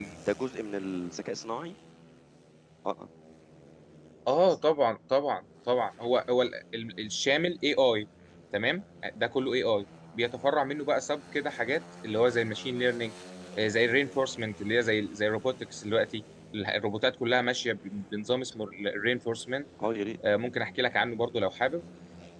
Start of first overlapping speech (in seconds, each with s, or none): none